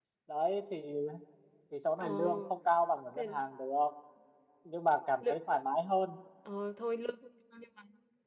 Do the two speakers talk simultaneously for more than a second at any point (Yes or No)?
No